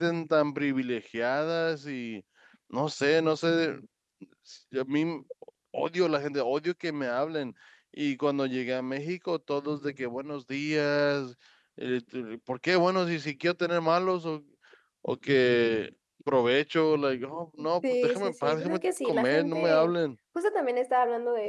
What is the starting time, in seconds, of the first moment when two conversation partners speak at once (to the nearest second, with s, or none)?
18 s